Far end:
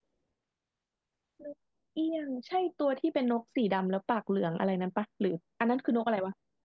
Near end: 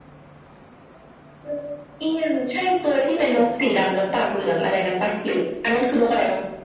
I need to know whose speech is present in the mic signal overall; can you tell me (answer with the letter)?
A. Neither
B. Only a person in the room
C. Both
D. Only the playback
C